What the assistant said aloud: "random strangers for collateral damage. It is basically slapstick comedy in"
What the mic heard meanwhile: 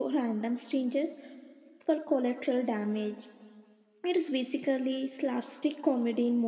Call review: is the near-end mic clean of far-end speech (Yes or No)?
No